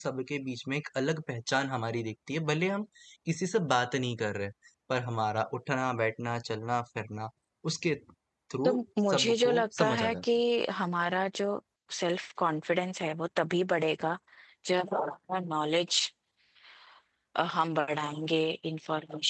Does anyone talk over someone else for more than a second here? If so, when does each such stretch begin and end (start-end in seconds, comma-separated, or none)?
9.1-10.3